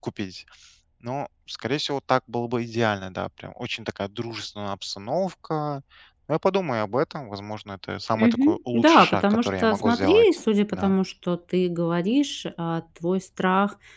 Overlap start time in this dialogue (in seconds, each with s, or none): 8.2 s